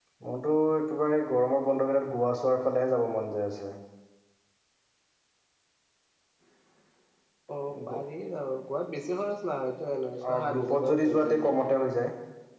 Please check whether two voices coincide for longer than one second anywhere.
Yes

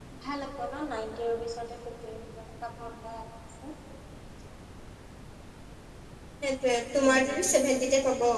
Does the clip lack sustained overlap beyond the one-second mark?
Yes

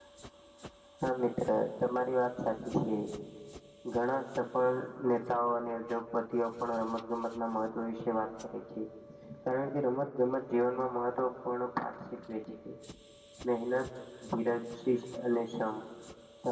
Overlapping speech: No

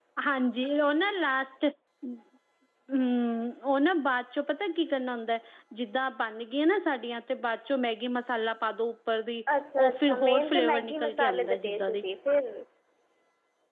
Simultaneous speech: Yes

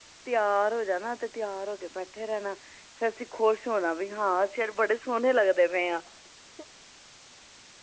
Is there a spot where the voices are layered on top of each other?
No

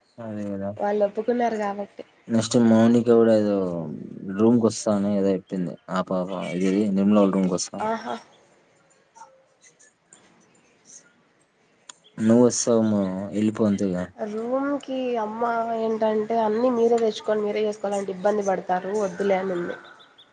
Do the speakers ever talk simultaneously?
No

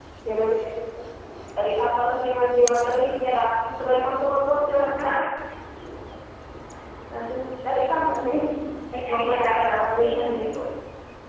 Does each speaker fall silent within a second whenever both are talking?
No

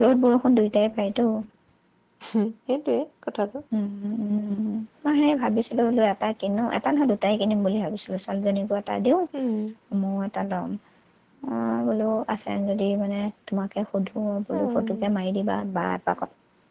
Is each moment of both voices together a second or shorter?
Yes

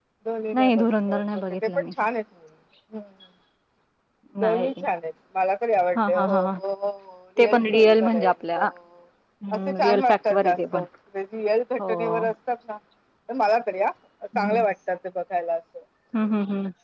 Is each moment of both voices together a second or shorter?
No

